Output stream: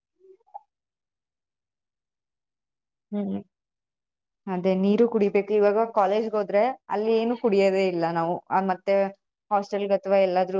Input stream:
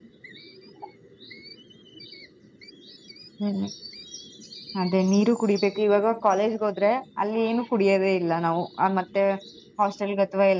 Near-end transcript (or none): none